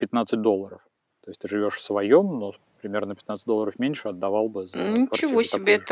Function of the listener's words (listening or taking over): taking over